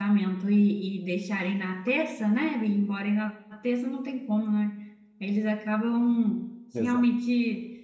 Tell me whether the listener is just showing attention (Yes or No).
Yes